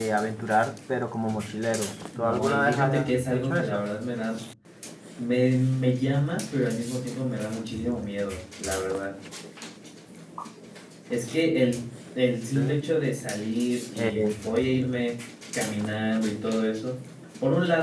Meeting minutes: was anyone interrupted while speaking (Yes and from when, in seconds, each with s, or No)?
Yes, from 2.2 s